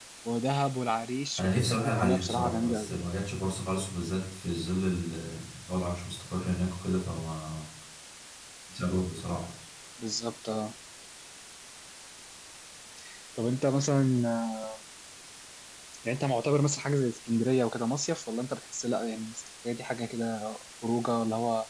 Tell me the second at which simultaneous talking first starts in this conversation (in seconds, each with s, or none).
1.4 s